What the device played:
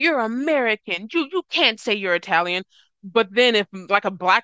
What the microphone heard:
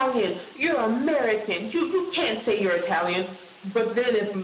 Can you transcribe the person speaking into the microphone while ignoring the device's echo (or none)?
none